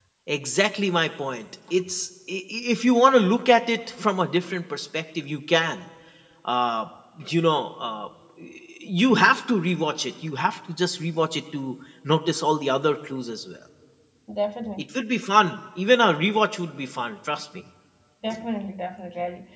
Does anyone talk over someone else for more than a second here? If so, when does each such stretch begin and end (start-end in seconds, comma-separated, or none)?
none